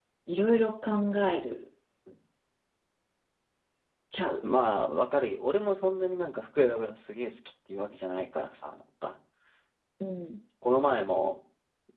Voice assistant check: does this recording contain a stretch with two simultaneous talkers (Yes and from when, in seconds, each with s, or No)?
No